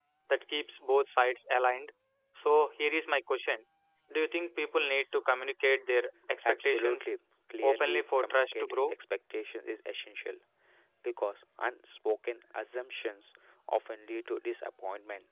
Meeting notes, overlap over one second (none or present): present